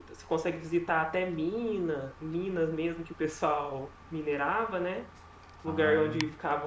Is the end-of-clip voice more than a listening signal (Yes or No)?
No